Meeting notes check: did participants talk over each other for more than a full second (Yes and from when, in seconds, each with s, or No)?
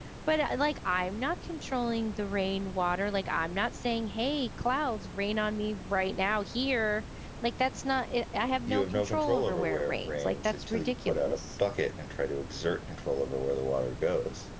Yes, from 8.7 s